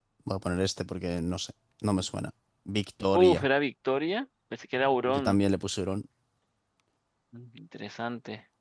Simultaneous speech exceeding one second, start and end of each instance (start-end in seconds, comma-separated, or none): none